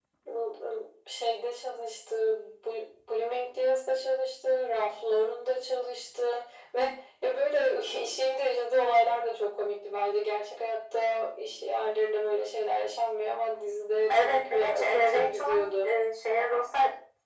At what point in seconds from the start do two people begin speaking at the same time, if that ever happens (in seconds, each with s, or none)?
14.1 s